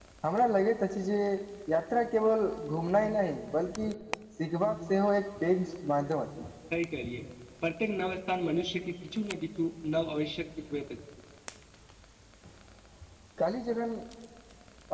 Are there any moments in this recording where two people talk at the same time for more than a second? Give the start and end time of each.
none

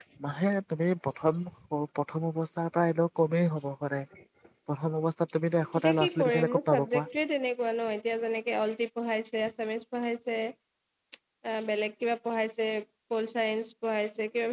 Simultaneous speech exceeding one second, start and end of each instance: 5.7-7.0

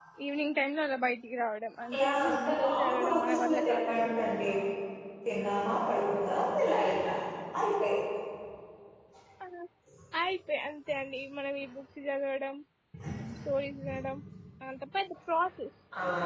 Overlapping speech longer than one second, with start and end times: 1.9-4.1

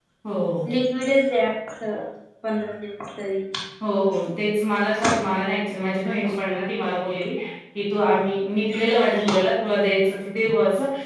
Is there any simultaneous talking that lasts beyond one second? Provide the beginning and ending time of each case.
none

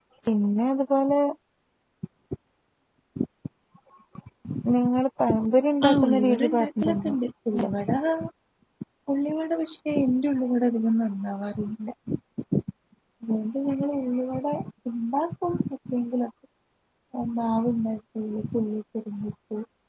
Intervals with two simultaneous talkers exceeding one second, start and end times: 5.9-7.1

